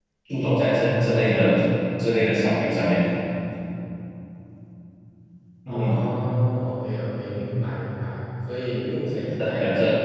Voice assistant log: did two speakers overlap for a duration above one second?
No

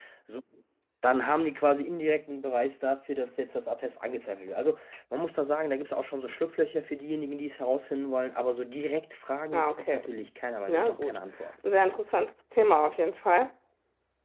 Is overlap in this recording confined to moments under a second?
Yes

